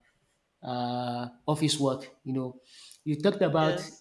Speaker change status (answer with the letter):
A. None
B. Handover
A